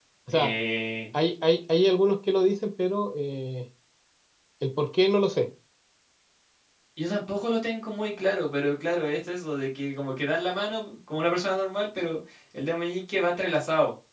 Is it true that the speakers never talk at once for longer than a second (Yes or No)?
Yes